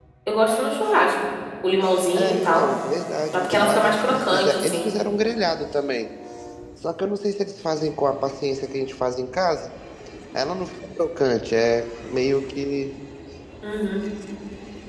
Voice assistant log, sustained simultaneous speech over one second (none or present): present